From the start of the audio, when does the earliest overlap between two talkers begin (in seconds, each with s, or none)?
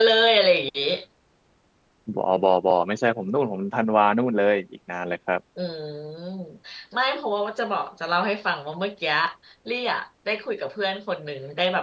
none